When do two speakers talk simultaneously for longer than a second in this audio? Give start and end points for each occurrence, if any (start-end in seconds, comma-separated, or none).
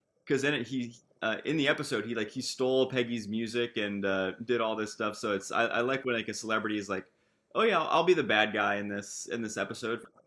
none